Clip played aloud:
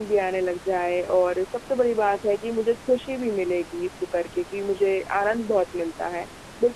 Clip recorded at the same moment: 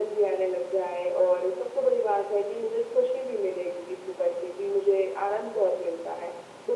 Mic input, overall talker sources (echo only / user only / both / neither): echo only